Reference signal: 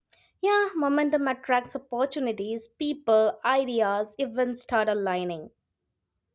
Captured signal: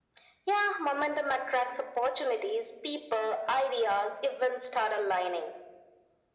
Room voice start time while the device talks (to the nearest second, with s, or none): none